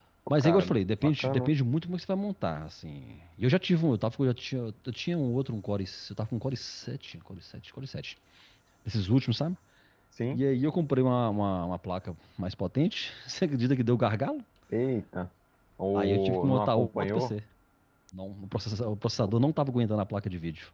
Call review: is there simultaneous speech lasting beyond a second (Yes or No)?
Yes